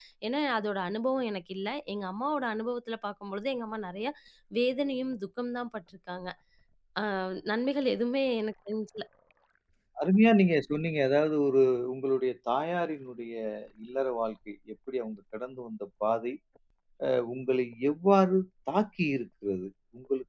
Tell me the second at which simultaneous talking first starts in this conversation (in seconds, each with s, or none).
none